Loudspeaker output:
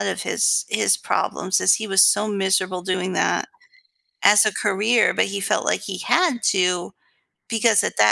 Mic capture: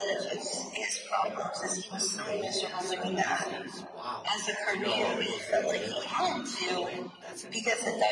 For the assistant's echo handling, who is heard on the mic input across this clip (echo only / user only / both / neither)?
both